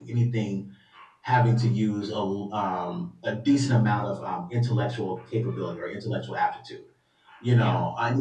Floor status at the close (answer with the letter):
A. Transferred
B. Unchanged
B